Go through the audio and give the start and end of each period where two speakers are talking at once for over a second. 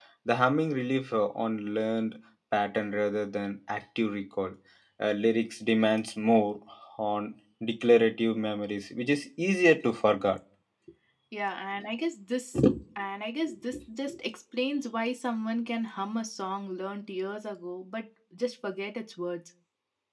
none

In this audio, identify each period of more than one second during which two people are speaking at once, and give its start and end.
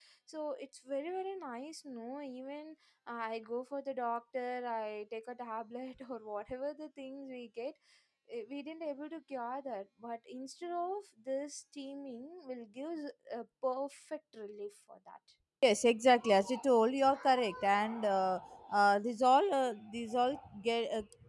none

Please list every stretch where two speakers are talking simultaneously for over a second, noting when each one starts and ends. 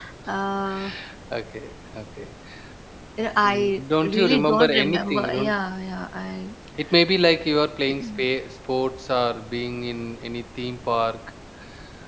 3.5-5.5

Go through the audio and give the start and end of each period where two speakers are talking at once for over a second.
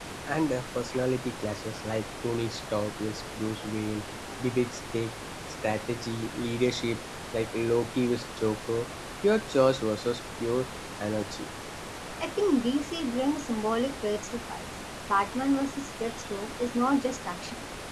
none

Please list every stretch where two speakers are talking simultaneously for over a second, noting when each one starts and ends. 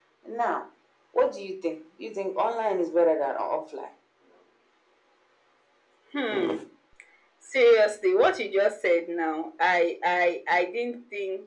none

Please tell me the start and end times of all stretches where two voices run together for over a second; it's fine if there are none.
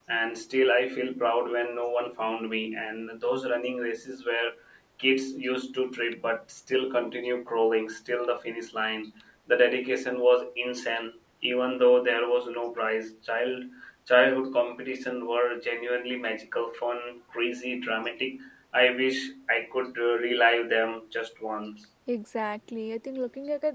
none

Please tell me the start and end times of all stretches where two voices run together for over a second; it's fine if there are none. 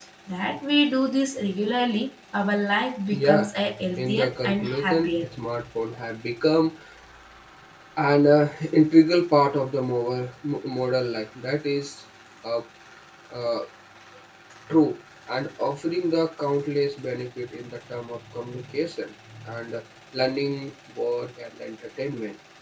4.0-5.2

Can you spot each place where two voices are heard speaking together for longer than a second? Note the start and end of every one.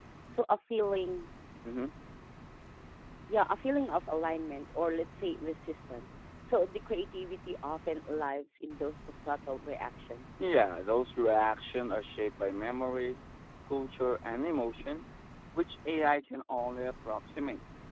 none

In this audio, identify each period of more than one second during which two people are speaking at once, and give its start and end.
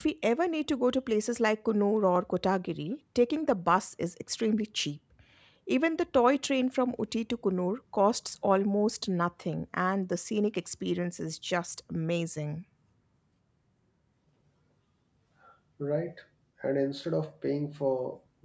none

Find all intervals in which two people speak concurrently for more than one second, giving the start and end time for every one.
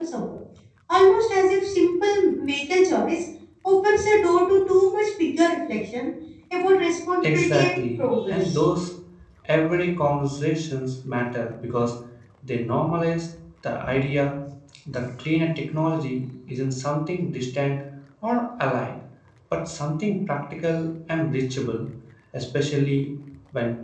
7.3-8.6

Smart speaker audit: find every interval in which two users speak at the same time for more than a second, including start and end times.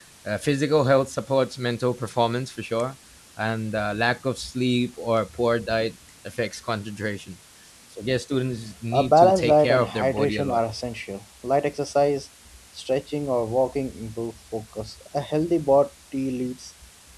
8.9-10.6

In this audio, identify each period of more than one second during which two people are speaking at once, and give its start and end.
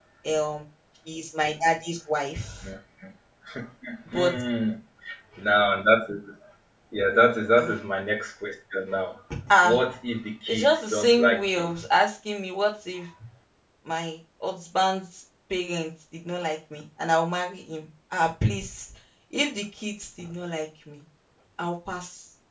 10.5-11.7

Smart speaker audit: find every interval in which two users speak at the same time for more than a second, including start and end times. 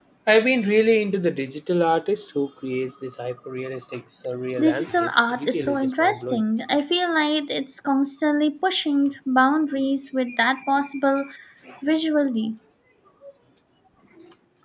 4.6-6.4

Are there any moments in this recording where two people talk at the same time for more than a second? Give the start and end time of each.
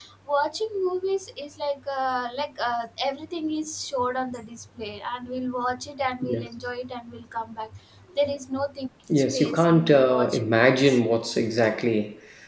9.1-11.0

